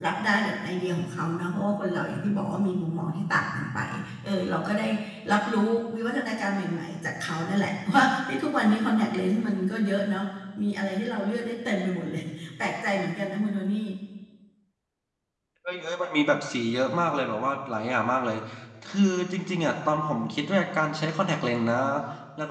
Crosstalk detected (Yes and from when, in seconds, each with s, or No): No